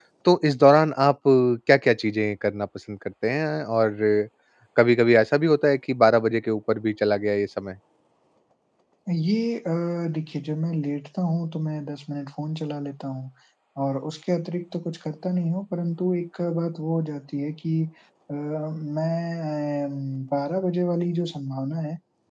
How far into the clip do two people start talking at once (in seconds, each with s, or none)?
none